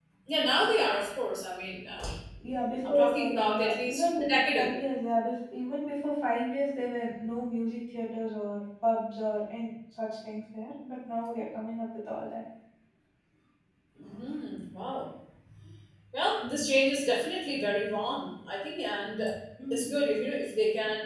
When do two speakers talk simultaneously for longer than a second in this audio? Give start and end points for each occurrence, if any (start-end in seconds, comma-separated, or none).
2.9-4.8